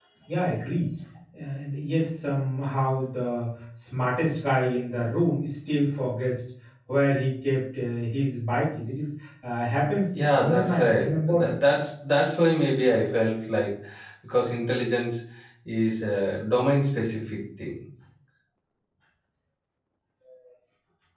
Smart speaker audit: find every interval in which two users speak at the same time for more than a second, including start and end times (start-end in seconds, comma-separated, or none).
10.1-11.5